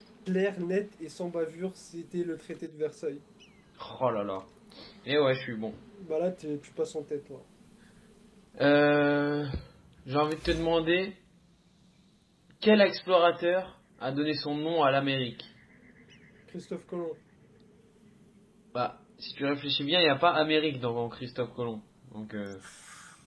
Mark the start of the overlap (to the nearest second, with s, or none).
none